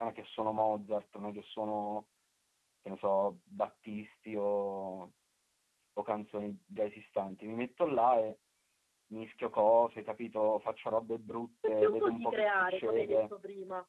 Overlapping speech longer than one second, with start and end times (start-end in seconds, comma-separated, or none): 11.7-13.3